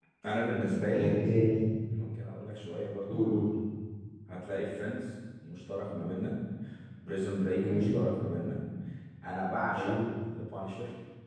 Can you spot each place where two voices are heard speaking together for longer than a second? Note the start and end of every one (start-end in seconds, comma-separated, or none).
none